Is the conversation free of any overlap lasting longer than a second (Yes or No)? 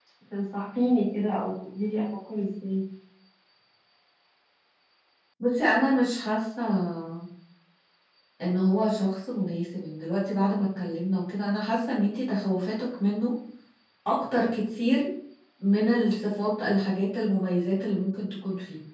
Yes